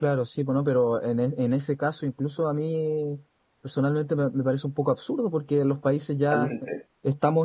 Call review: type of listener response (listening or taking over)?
listening